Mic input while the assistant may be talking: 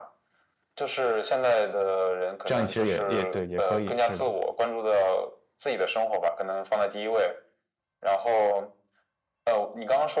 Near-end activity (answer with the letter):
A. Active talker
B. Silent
A